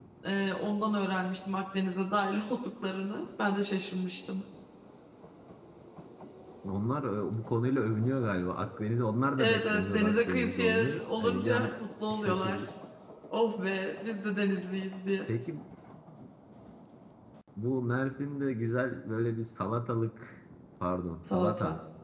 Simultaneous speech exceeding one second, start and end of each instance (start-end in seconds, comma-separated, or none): 9.4-11.8